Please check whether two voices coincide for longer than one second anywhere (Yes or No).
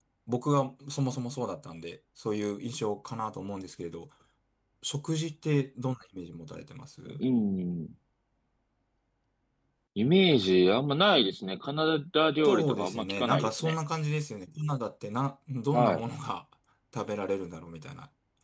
Yes